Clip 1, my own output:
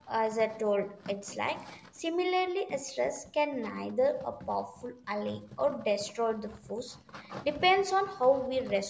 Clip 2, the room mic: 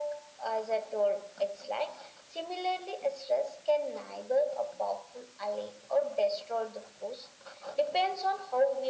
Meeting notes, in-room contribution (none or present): none